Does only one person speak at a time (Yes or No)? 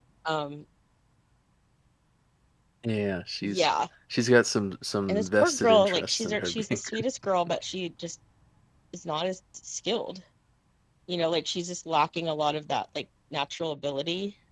No